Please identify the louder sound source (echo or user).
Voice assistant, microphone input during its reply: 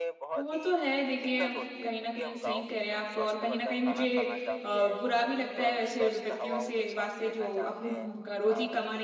user